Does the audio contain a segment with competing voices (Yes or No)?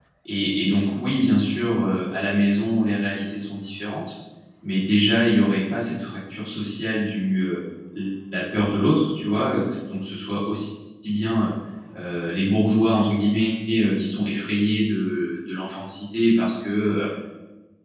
No